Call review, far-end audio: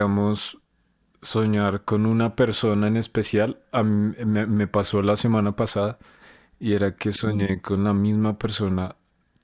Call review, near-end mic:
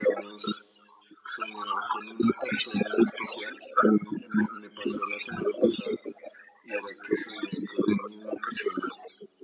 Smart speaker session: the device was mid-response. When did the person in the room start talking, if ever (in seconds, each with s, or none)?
none